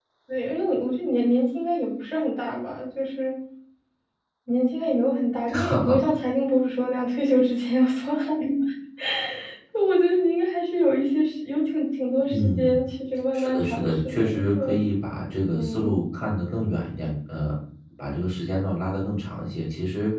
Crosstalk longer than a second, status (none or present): present